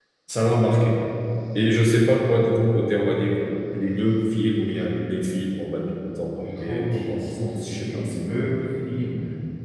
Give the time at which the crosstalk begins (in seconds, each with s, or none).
6.3 s